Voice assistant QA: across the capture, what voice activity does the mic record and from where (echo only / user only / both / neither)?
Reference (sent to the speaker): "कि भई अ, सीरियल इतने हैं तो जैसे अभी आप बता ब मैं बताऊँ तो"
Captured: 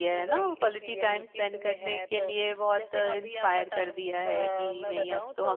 both